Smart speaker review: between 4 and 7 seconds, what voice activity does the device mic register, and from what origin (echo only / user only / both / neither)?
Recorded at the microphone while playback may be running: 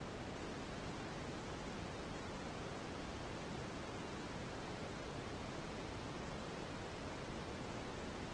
neither